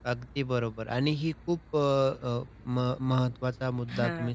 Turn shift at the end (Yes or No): No